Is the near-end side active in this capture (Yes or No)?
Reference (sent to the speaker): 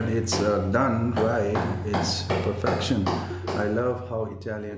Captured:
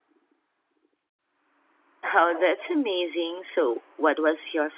Yes